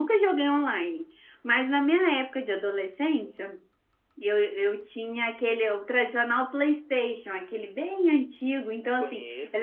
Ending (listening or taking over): listening